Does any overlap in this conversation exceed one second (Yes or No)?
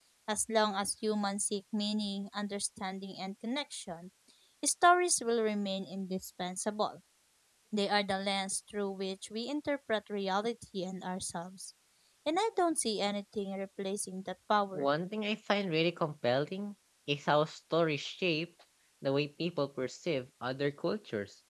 No